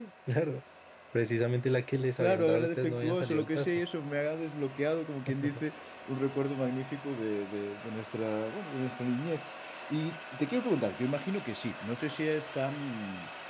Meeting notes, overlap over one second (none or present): present